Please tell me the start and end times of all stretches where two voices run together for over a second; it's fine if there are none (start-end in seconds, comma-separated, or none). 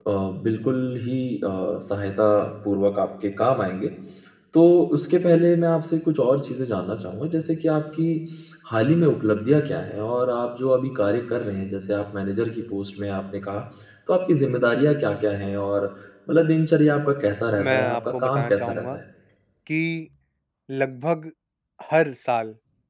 17.6-18.9